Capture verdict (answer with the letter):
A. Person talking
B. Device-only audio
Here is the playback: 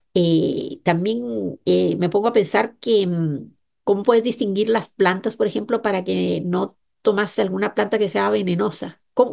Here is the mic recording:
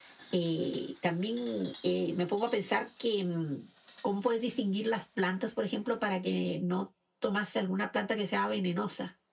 B